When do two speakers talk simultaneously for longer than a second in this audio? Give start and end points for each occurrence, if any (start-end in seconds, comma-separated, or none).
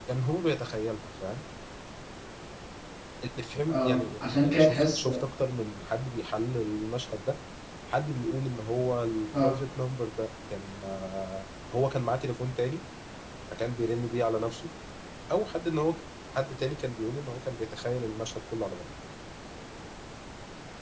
3.7-5.1